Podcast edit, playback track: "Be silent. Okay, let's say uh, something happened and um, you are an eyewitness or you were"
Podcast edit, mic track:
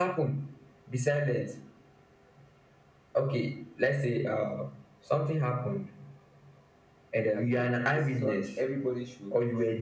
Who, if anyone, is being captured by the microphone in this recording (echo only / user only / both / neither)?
both